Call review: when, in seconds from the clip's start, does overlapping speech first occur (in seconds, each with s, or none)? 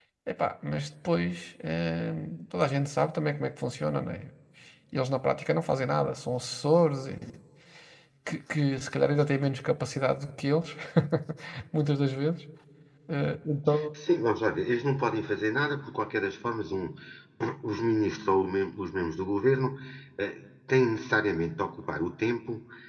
none